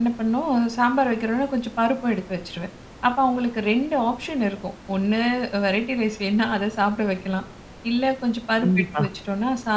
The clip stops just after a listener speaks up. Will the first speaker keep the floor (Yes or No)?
Yes